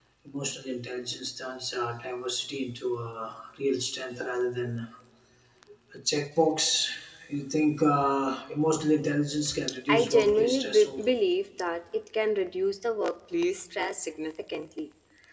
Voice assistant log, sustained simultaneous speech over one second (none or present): present